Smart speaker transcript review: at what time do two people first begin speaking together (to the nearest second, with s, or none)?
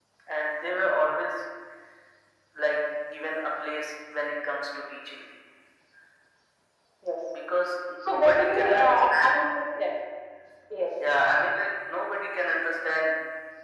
8 s